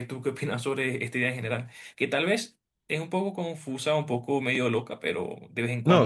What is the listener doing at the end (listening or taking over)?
taking over